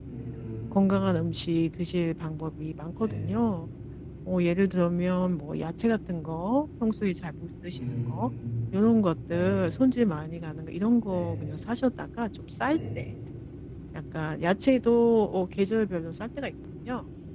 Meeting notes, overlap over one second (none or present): none